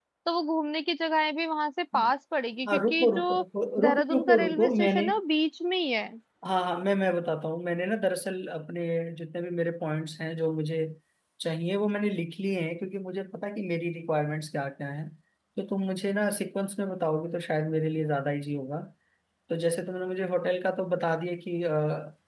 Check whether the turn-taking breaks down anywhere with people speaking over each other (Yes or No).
Yes